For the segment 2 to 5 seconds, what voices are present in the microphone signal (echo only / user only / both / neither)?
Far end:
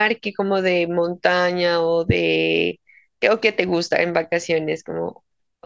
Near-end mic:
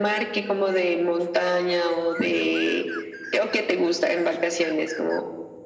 echo only